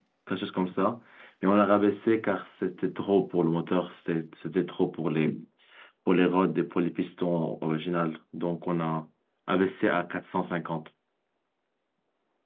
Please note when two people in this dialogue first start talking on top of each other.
none

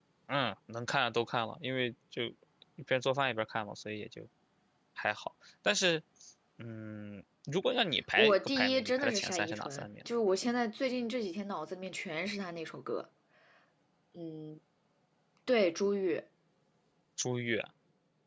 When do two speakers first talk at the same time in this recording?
8.2 s

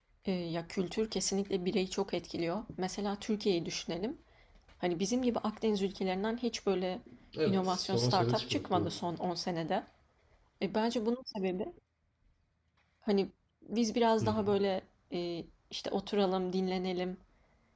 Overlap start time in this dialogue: 7.4 s

